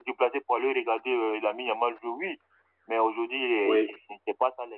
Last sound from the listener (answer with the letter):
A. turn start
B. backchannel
B